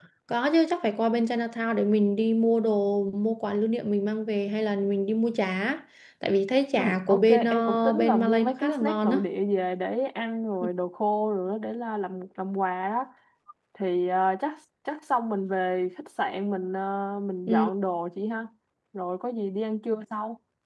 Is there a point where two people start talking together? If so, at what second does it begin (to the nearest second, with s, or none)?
7 s